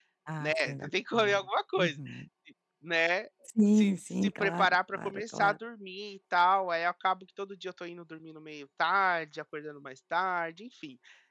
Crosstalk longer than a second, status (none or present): present